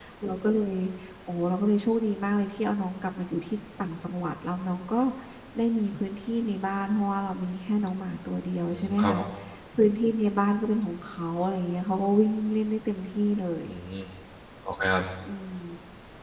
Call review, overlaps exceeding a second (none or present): none